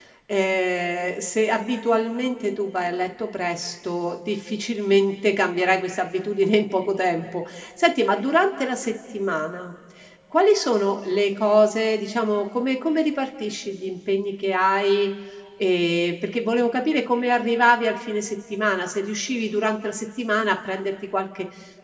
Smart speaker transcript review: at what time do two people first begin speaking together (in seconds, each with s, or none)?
none